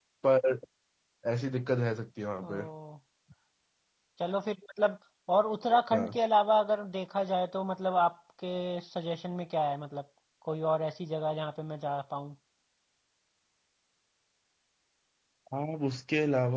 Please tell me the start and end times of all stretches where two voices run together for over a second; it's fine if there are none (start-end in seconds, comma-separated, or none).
none